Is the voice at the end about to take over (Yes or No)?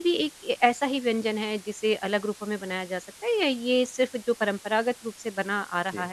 No